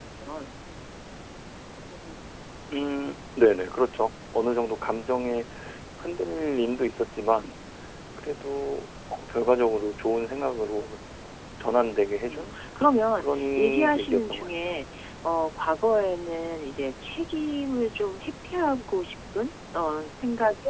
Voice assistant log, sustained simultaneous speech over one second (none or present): present